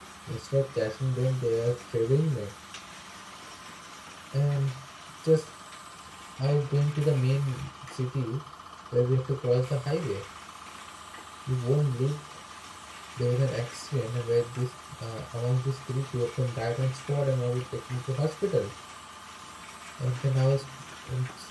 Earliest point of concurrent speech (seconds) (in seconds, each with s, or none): none